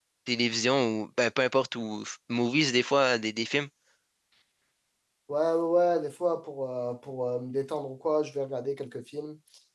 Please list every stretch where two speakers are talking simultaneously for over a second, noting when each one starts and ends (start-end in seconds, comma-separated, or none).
none